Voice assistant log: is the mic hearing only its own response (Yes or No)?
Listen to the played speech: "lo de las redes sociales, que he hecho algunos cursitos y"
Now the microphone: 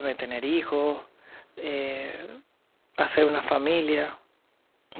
No